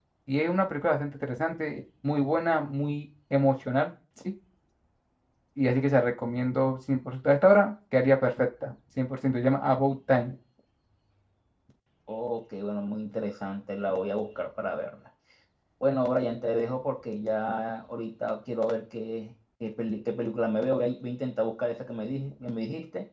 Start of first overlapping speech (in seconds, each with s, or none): none